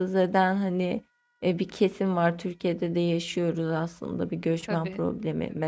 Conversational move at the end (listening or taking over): listening